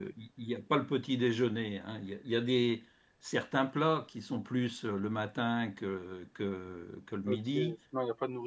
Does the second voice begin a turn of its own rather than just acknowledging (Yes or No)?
Yes